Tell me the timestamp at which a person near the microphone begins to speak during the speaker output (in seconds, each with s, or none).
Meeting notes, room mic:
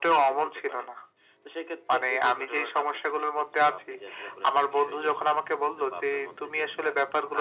none